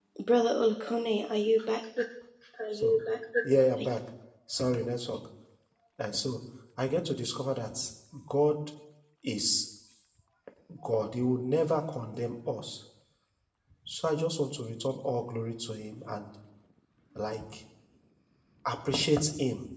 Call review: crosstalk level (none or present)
none